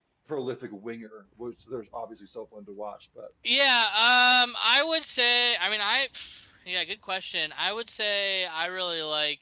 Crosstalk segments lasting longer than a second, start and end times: none

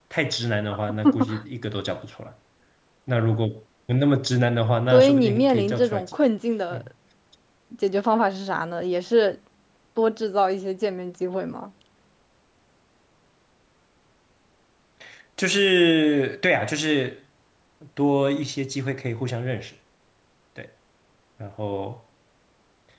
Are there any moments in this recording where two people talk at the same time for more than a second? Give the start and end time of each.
4.9-6.2

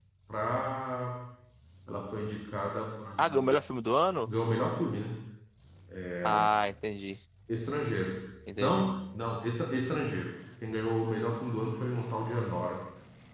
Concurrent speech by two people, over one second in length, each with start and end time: none

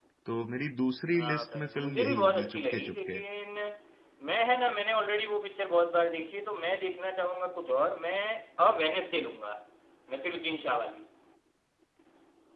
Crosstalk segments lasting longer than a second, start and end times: 1.1-3.2

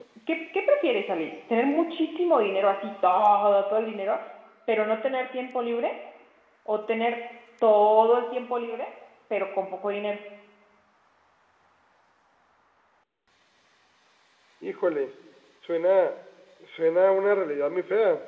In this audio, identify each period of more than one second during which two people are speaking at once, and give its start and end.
none

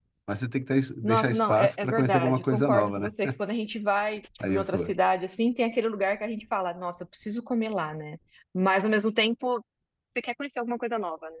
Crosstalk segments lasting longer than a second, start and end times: 1.0-3.1

